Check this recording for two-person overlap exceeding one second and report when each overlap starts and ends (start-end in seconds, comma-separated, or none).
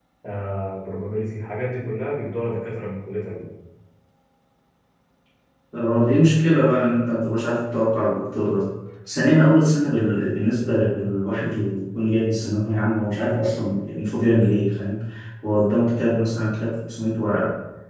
none